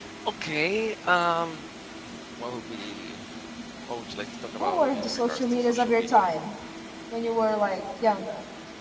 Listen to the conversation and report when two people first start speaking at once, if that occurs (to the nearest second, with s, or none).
5 s